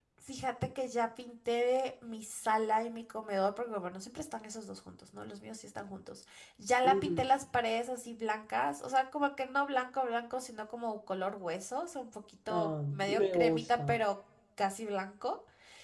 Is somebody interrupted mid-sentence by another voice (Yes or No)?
Yes